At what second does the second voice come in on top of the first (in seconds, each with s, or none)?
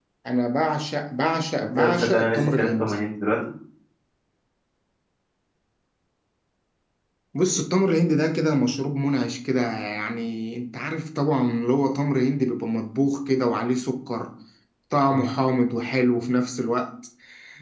1.7 s